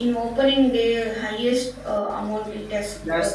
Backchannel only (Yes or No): No